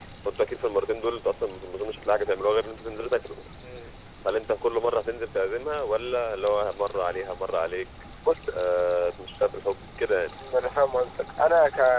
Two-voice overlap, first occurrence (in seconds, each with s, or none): none